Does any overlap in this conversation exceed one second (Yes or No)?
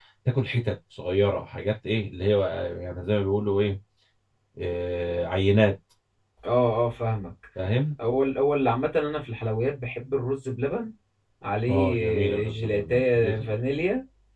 Yes